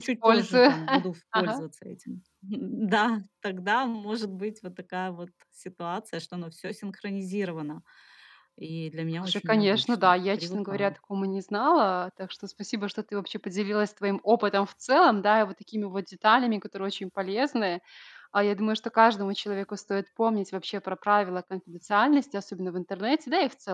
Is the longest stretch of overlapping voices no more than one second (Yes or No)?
No